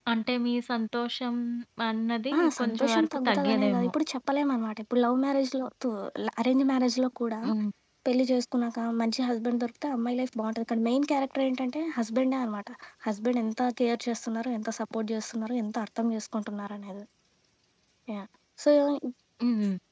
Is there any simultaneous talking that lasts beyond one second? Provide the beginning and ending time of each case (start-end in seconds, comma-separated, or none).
2.4-3.9